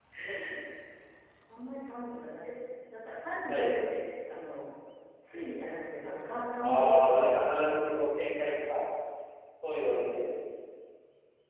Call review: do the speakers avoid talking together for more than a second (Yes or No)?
No